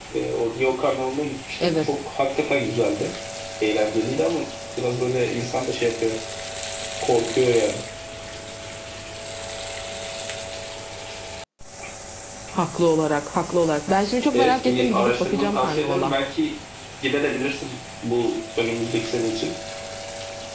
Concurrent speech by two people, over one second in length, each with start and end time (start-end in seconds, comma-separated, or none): 14.3-16.1